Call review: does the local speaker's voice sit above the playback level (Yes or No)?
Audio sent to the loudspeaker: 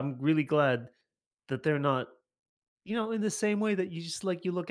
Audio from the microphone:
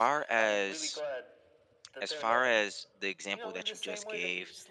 Yes